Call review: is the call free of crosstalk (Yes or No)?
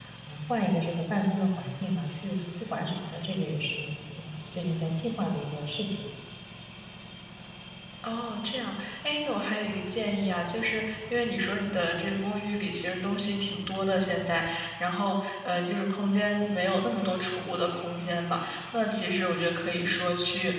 Yes